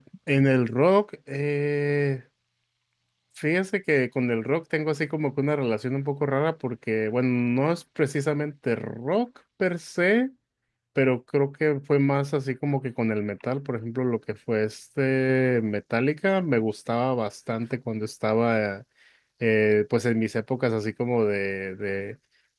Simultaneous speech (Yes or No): No